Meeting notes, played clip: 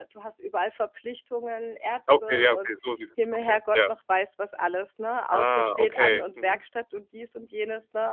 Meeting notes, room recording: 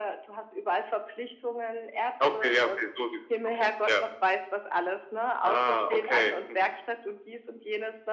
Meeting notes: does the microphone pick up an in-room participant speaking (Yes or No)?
No